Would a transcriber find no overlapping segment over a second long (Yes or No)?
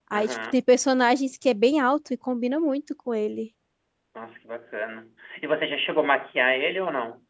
Yes